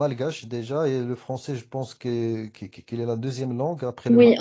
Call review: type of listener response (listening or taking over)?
taking over